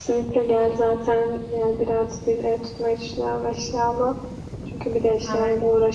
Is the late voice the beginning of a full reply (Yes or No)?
No